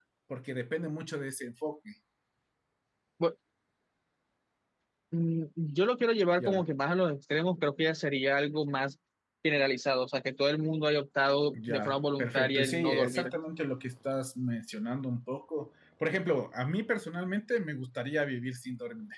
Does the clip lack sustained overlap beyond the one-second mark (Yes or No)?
No